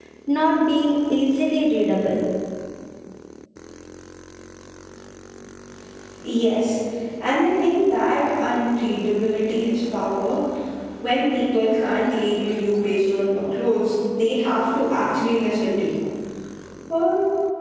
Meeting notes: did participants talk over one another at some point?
No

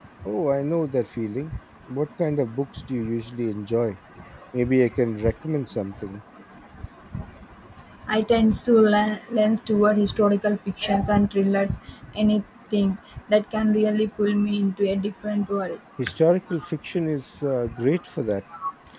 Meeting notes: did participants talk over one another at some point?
No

